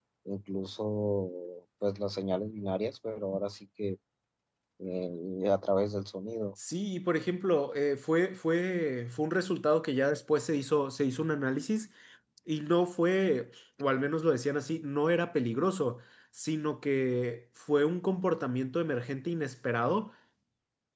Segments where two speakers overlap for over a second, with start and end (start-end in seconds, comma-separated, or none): none